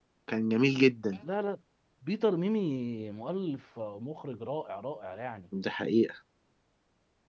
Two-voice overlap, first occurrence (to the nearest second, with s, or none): none